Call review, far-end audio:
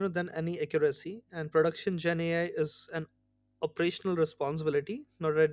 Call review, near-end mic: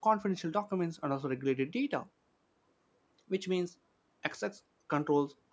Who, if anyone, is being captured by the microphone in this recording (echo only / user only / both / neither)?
user only